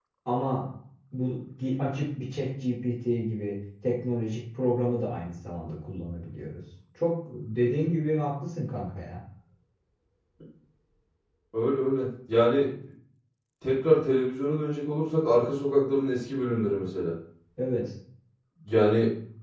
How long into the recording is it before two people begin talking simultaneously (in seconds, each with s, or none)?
none